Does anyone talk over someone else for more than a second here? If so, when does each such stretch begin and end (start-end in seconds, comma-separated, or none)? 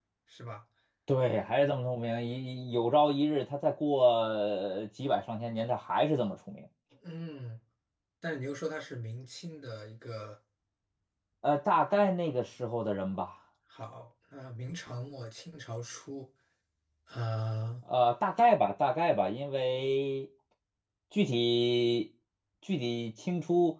none